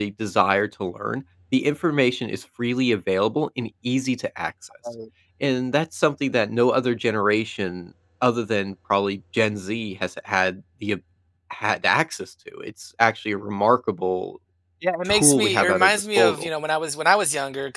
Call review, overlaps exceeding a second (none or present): present